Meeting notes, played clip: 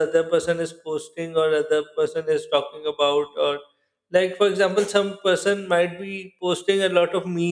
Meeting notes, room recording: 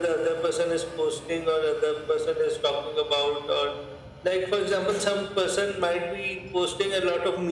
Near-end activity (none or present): none